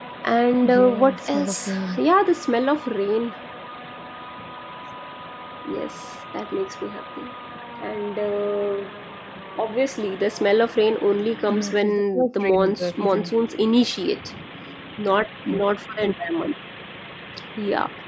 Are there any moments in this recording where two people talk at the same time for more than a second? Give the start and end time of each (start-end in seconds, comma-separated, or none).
0.6-2.0, 11.5-13.3